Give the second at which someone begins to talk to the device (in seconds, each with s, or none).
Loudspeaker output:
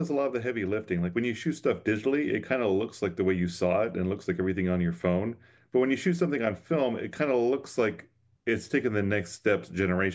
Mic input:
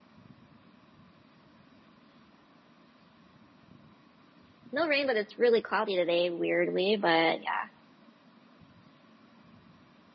4.7 s